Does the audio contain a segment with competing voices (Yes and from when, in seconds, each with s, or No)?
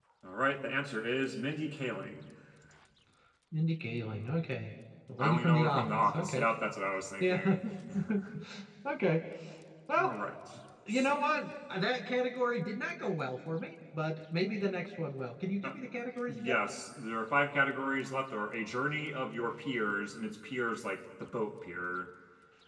Yes, from 5.2 s